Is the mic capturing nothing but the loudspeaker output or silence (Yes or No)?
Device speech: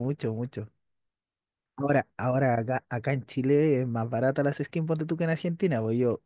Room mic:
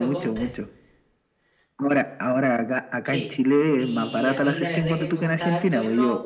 No